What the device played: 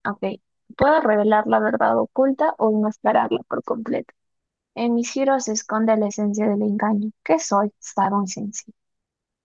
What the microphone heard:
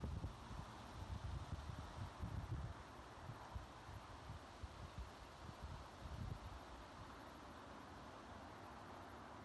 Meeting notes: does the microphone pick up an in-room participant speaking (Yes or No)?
No